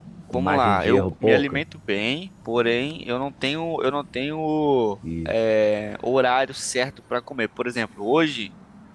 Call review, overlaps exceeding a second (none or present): present